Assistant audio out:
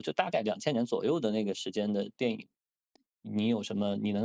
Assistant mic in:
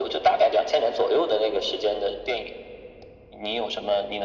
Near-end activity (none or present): none